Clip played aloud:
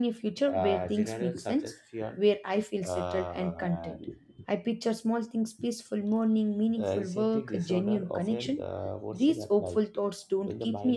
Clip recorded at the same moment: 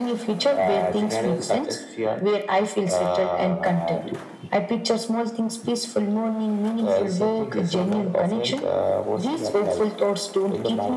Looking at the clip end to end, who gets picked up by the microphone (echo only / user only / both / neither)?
echo only